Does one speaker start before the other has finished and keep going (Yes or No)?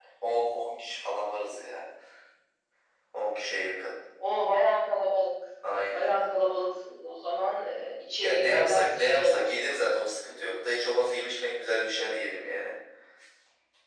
Yes